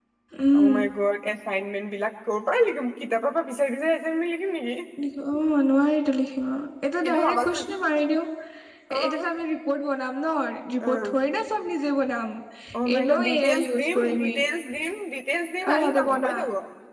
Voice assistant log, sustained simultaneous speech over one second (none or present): present